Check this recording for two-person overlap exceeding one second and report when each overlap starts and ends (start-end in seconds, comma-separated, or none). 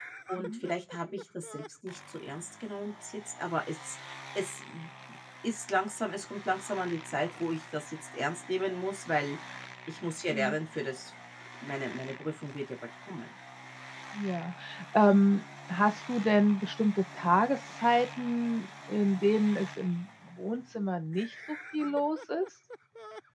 none